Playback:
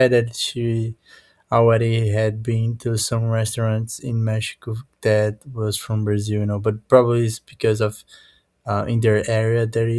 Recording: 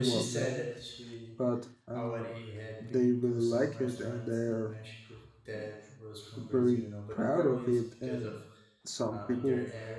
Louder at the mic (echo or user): user